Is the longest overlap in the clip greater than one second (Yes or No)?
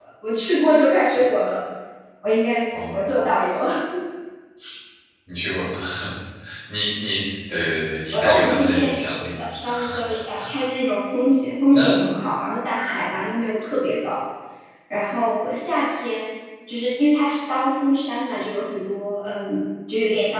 Yes